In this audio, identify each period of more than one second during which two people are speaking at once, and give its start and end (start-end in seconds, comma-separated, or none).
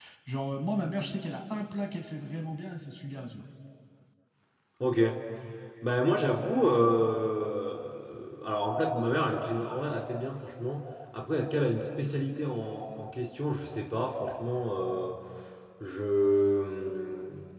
none